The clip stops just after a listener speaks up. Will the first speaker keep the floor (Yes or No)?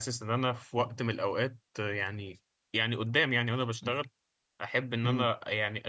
Yes